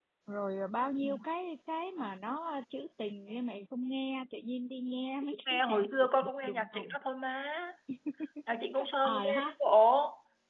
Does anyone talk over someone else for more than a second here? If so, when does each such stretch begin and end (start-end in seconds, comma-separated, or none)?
5.5-7.0